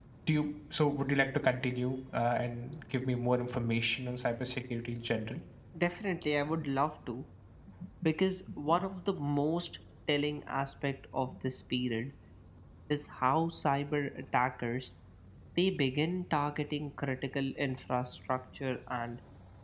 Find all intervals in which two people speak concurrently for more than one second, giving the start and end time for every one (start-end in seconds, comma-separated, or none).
none